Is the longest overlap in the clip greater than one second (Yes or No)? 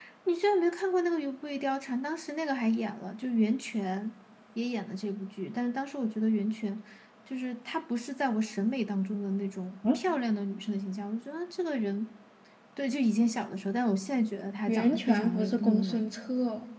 Yes